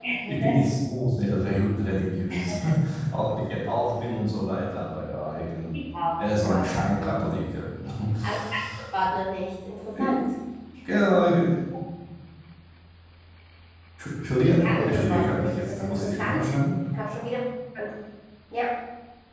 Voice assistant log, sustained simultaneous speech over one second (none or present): present